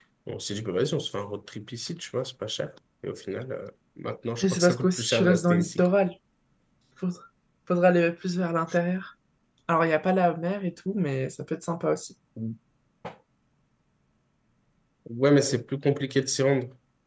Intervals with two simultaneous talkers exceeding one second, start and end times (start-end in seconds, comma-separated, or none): 4.4-5.9